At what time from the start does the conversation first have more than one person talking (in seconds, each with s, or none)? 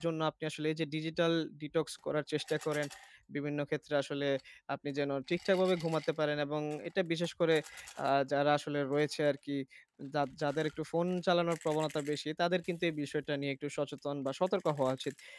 none